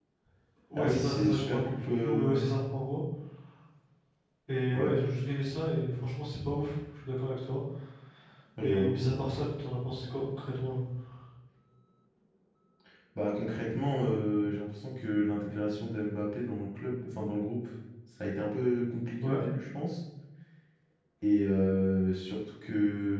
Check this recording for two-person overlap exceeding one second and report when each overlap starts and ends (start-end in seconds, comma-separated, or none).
0.8-2.4